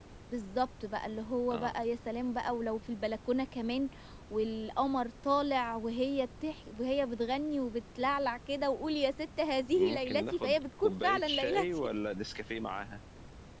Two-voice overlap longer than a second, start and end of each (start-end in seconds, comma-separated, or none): 9.8-11.7